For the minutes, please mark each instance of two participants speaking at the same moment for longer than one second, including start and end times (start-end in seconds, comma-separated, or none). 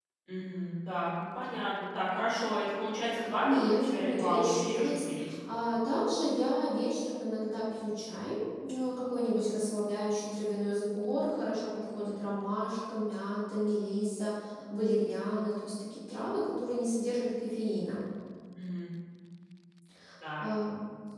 3.4-5.3